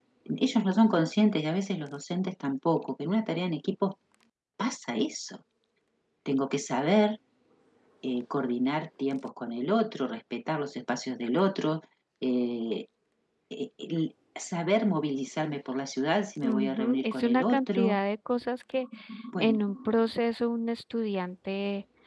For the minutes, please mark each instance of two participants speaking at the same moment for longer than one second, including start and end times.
16.4-18.0

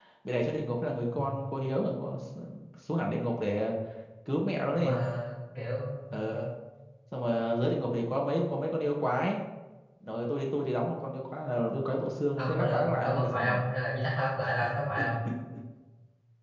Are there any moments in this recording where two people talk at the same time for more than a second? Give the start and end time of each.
12.4-13.6

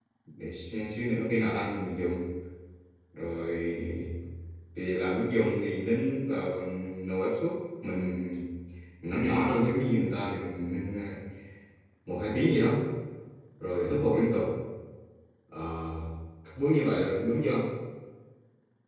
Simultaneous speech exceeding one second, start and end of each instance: none

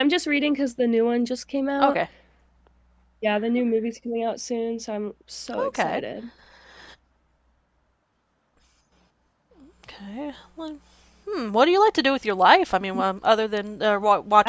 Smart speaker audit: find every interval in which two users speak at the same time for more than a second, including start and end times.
none

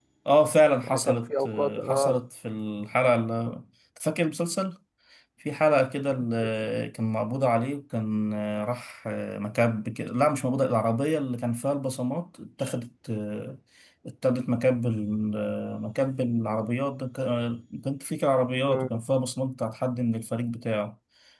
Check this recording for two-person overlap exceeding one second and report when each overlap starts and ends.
0.8-2.2

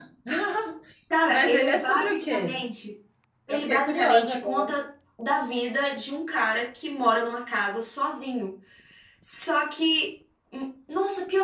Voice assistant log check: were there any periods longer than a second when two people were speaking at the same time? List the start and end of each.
1.3-2.6, 3.5-4.8

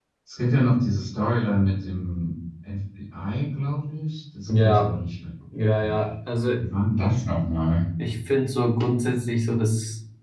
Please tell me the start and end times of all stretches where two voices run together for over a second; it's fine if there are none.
none

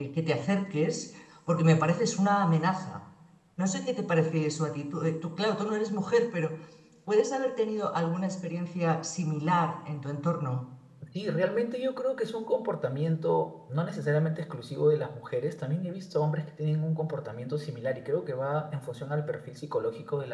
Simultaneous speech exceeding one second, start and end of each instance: none

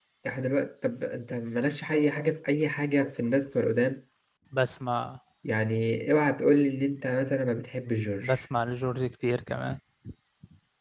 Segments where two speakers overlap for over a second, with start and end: none

